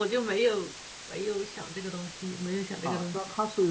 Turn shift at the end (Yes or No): Yes